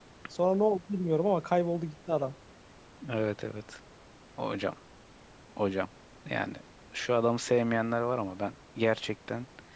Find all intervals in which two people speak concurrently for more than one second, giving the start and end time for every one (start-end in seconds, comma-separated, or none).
none